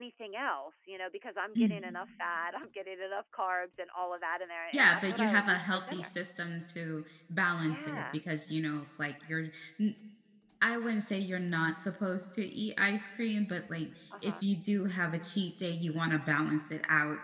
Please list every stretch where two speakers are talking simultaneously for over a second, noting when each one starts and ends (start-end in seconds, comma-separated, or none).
4.7-6.1